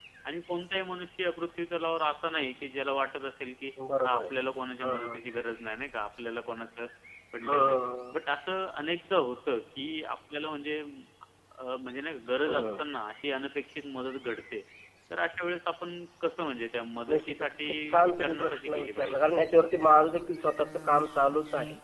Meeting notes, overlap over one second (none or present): present